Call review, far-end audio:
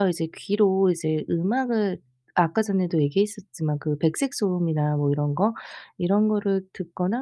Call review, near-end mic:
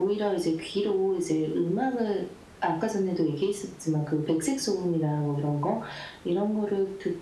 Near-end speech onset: none

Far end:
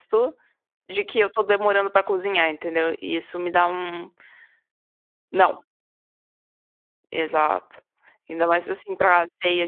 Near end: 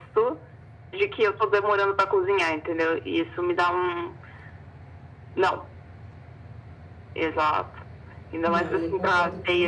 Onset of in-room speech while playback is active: 8.4 s

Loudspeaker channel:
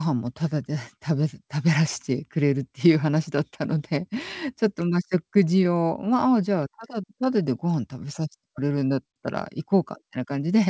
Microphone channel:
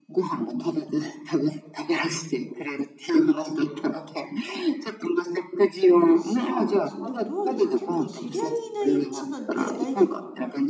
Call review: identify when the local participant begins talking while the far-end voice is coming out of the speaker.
6.1 s

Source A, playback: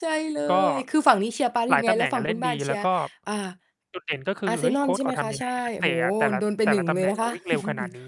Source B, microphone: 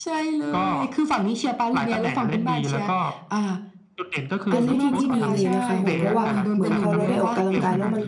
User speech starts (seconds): 4.5 s

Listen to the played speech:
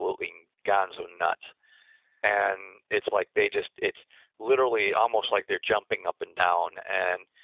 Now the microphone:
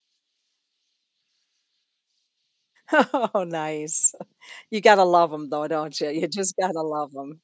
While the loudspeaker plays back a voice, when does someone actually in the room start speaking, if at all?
2.9 s

